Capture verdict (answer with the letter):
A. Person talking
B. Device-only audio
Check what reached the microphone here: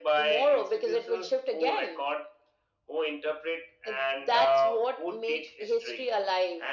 B